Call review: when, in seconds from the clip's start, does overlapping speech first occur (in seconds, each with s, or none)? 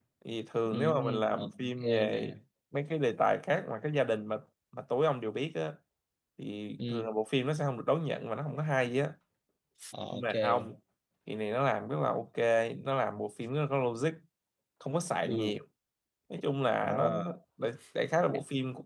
0.7 s